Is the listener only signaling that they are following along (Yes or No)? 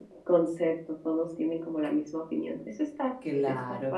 No